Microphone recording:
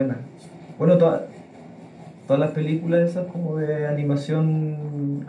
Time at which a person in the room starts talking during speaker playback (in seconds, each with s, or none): none